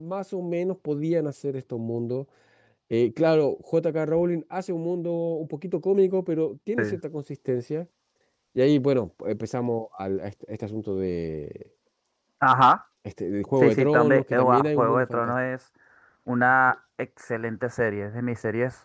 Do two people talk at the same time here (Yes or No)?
Yes